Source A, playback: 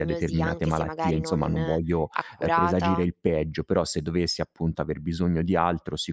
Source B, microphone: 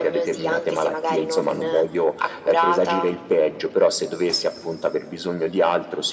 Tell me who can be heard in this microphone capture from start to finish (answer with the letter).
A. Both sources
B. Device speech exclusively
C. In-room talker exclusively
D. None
B